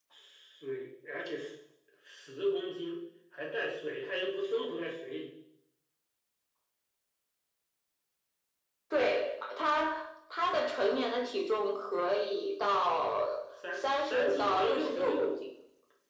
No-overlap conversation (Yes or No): No